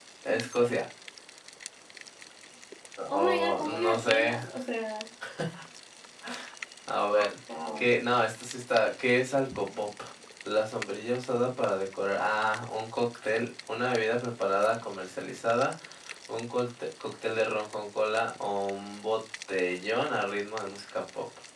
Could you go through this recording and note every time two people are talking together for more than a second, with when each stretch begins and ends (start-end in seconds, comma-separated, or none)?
3.1-4.3